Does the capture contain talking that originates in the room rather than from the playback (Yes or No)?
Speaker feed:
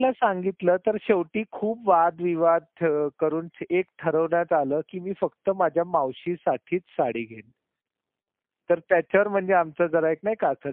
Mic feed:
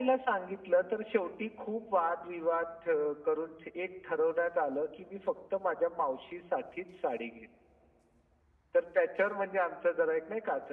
No